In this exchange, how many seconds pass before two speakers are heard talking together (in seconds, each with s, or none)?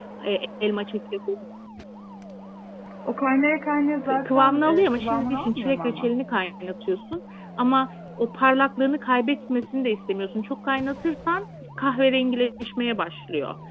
4.1 s